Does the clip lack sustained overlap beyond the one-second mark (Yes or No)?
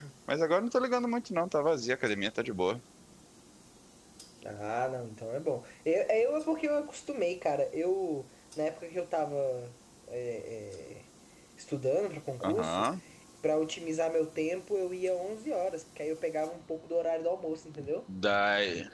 Yes